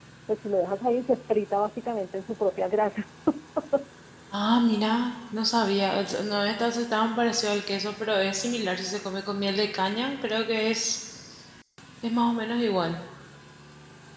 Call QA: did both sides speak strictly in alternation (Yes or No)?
Yes